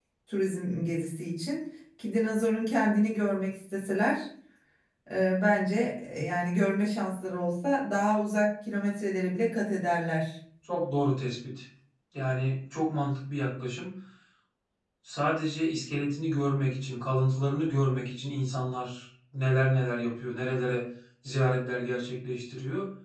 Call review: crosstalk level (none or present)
none